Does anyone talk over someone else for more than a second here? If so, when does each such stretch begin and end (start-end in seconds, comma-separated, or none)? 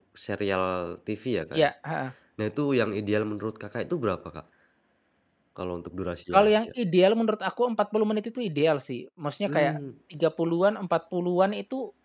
none